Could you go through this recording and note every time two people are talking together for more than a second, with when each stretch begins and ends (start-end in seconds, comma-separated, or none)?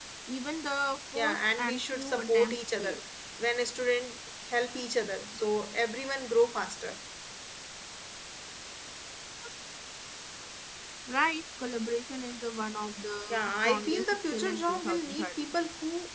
1.1-3.0, 13.3-15.4